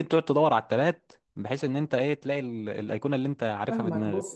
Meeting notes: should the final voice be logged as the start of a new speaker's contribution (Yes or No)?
Yes